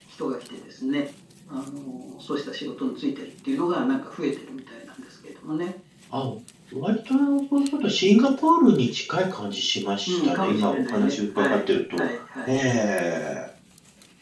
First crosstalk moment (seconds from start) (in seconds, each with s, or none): 10.1 s